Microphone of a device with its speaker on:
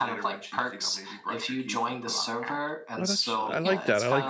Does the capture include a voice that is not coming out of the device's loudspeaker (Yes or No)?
Yes